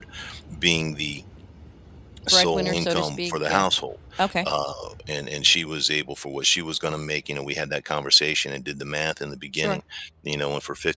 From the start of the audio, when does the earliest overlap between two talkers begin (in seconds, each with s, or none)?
2.3 s